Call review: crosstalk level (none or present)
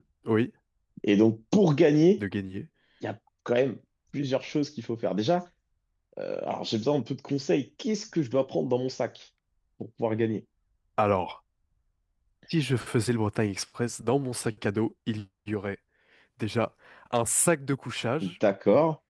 none